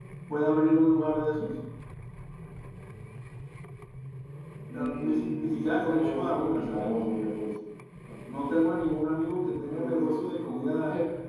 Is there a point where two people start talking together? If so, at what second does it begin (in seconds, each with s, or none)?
4.7 s